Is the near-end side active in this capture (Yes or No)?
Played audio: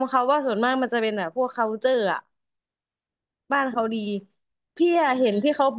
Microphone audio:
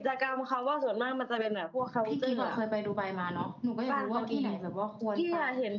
Yes